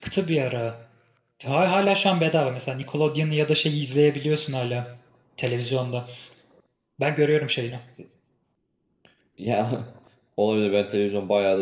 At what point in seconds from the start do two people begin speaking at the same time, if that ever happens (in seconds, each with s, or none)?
none